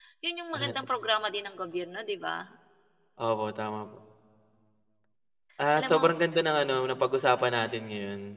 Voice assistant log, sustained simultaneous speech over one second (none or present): none